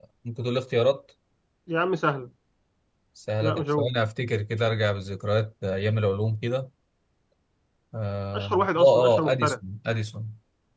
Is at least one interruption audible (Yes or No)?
Yes